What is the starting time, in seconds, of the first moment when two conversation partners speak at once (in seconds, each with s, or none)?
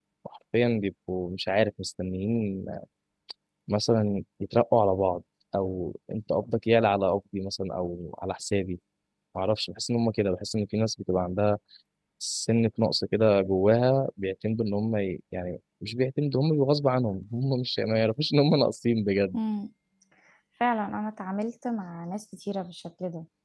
none